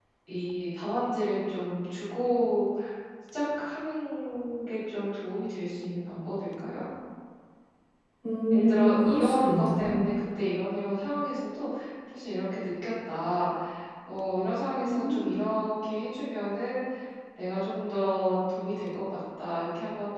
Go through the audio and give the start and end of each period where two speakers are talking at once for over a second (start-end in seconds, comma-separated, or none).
8.5-10.0